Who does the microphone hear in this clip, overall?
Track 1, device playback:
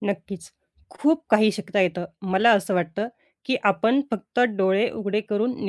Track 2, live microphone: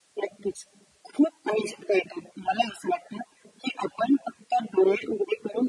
echo only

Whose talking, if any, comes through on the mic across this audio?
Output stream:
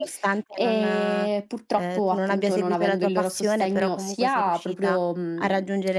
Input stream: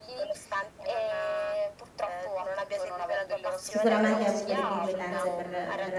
both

